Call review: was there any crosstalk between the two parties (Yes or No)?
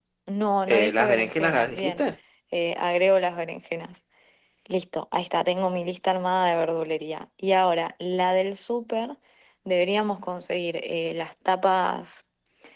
Yes